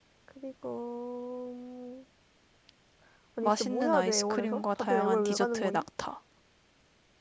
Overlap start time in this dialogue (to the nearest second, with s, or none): 3 s